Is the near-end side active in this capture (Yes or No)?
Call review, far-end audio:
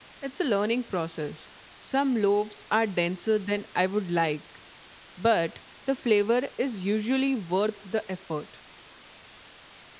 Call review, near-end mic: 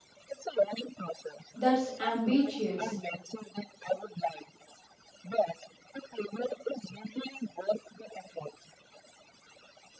Yes